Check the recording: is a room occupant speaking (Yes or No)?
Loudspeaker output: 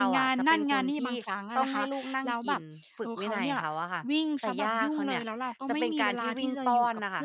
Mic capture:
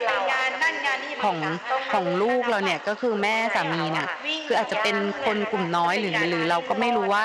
Yes